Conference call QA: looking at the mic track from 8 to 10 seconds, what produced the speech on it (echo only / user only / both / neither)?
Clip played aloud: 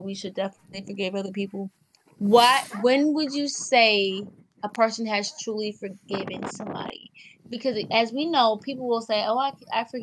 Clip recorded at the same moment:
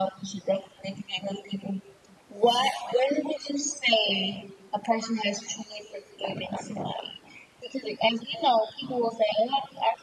echo only